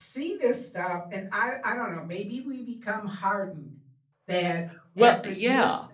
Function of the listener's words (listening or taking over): listening